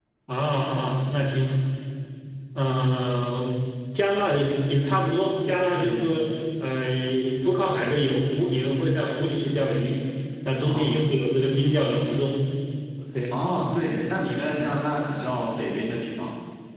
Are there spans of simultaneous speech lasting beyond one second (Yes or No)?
No